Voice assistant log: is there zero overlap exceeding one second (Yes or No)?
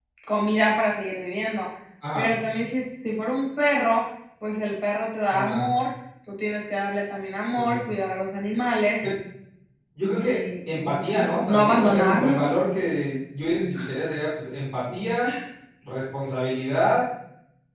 No